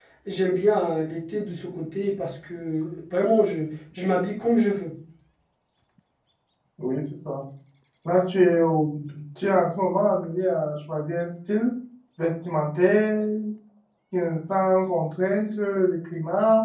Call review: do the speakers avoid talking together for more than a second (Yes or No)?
Yes